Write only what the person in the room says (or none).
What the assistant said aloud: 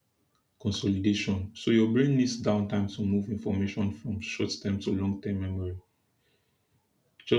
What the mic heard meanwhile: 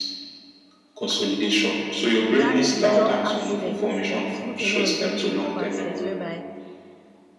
regarding the job aspects like we spoke earlier regarding the job aspects whereby